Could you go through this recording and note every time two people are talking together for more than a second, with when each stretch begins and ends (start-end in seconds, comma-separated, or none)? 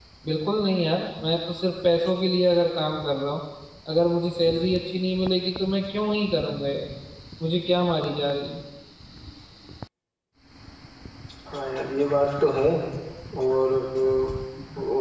none